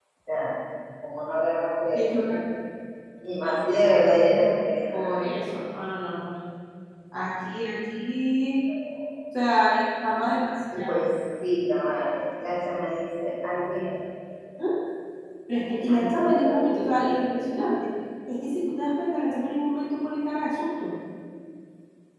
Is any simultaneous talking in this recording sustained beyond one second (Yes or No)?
Yes